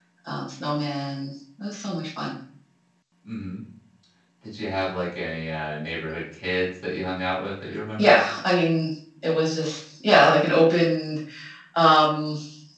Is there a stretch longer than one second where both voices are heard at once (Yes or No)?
No